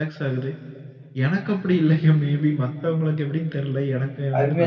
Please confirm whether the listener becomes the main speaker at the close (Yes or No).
Yes